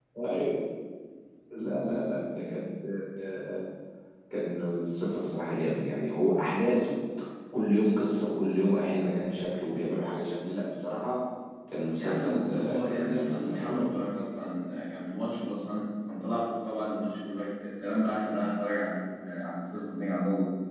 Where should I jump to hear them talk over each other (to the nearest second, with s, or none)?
12 s